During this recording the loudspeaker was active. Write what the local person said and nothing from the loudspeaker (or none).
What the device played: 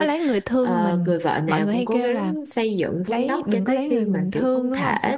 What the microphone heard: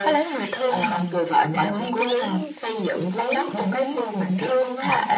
none